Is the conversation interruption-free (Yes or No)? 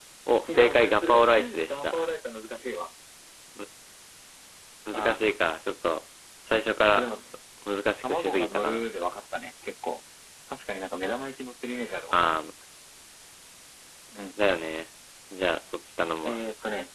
No